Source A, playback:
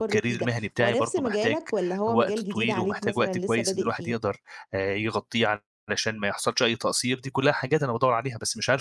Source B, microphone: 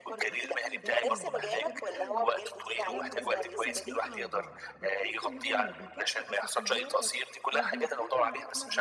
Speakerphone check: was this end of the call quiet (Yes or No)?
No